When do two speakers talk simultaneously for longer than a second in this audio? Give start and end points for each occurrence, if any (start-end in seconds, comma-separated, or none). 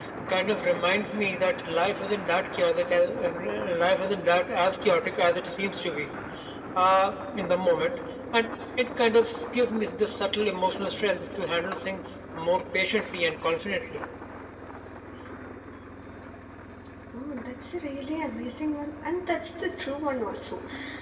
none